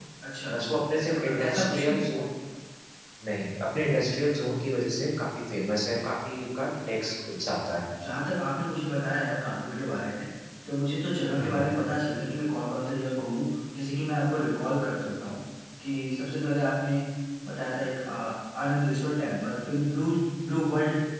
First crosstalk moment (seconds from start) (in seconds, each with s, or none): 0.5 s